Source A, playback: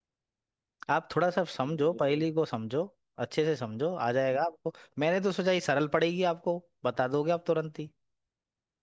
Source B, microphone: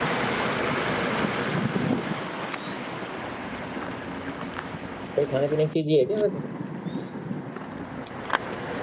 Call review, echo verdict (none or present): none